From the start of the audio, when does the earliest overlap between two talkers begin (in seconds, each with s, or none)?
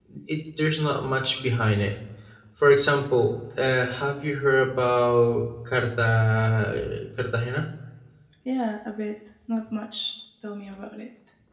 none